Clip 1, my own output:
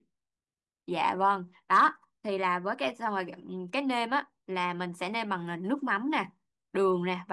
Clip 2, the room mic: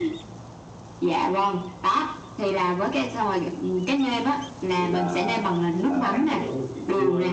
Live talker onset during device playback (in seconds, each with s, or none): 4.8 s